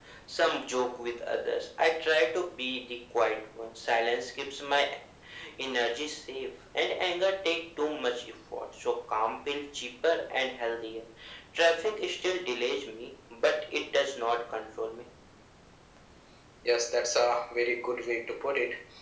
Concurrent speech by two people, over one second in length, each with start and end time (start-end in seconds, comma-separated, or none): none